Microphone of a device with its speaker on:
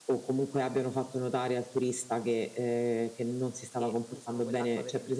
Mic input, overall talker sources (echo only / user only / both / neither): both